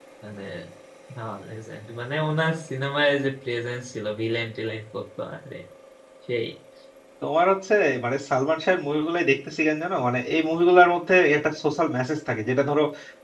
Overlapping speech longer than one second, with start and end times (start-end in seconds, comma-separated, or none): none